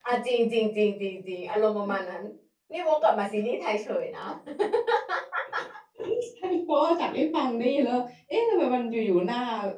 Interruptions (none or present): none